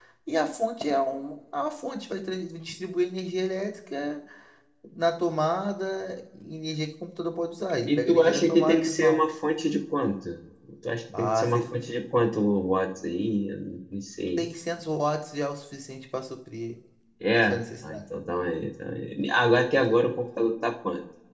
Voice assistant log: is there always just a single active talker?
No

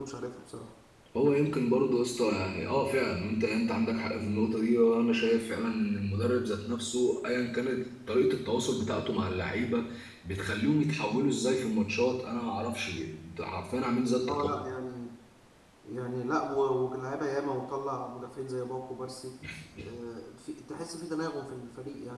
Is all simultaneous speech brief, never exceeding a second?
Yes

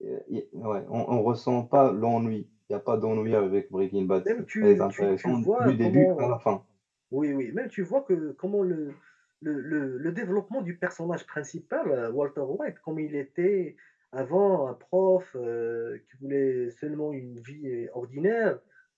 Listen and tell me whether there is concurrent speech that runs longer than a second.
Yes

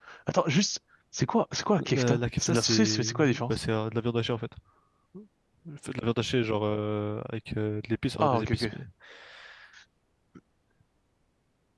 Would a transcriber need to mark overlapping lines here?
Yes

